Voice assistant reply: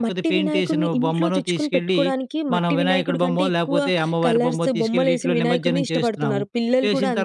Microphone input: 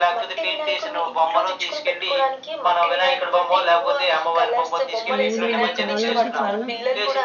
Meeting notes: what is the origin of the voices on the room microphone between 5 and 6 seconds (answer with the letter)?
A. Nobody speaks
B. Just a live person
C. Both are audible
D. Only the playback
C